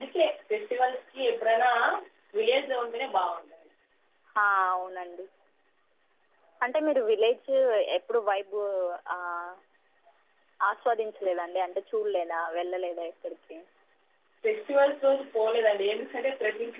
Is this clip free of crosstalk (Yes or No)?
Yes